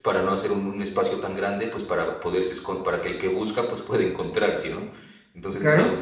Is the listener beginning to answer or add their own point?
No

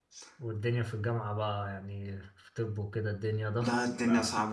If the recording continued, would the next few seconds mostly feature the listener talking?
Yes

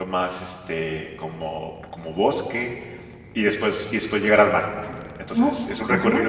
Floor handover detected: No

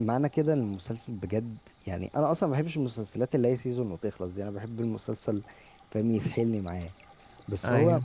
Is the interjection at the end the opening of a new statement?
No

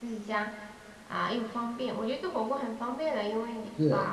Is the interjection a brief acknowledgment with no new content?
Yes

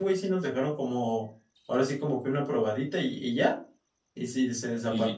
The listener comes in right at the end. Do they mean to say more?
Yes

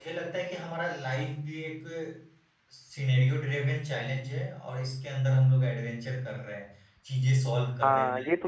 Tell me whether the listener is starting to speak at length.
Yes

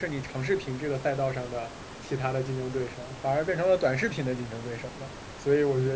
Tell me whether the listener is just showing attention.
Yes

